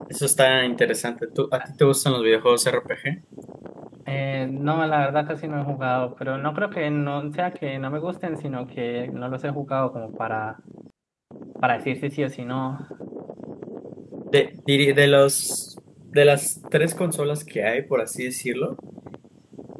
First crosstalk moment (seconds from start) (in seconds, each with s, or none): none